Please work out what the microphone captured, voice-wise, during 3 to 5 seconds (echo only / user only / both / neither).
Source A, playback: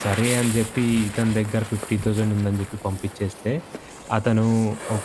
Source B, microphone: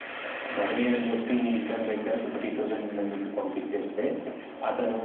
echo only